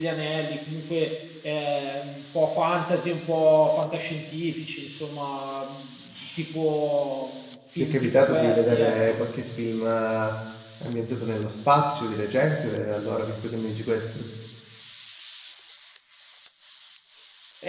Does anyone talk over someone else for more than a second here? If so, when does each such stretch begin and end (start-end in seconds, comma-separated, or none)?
7.8-9.2